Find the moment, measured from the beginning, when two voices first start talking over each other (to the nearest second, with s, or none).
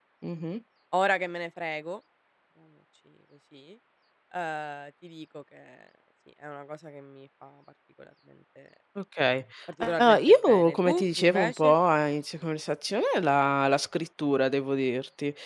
10 s